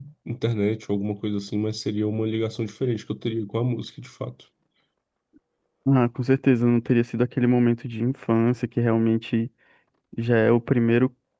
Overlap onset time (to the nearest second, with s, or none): none